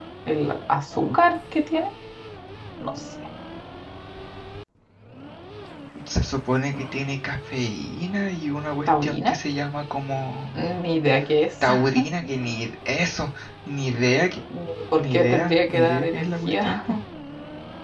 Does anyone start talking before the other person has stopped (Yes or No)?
Yes